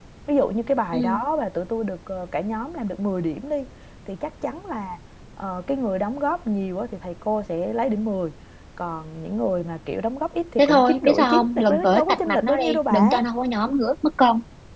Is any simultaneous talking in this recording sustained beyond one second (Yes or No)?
Yes